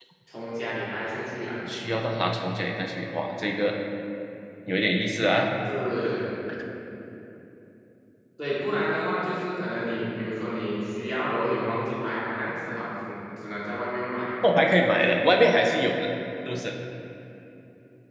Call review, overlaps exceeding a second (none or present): none